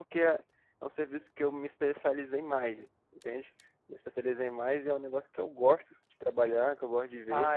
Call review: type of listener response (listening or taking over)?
taking over